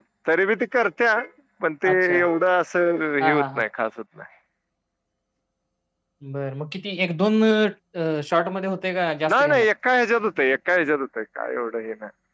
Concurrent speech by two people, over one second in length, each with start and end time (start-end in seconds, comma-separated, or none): none